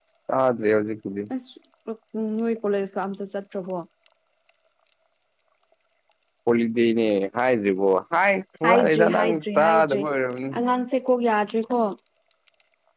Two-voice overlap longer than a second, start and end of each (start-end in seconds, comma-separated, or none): 8.7-10.0